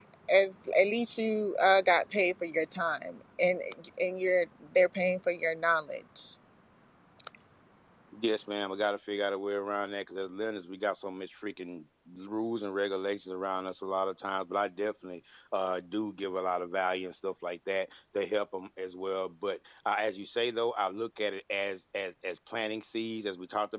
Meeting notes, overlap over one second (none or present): none